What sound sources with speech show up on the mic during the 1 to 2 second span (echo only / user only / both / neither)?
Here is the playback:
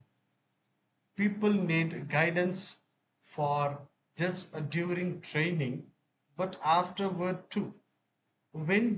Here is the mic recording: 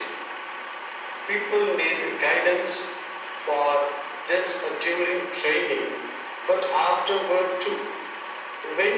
echo only